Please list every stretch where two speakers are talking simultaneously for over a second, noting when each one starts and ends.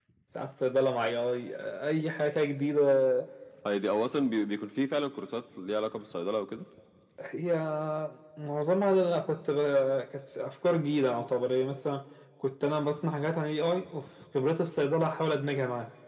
none

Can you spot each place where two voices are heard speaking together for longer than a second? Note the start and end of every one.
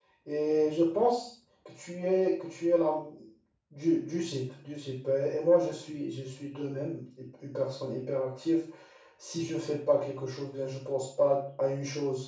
none

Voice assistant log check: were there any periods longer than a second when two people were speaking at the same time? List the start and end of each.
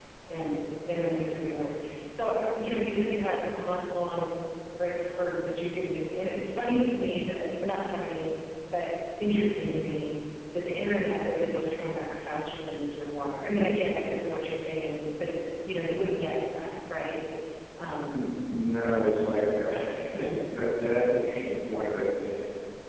none

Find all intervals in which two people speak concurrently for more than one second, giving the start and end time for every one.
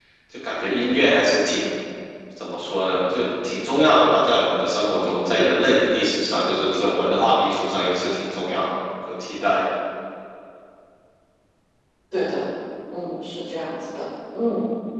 none

